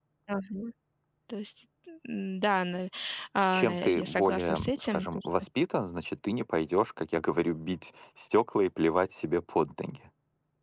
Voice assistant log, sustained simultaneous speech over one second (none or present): present